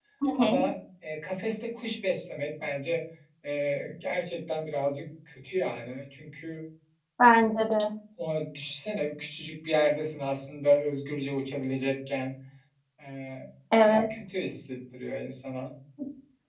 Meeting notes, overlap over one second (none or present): none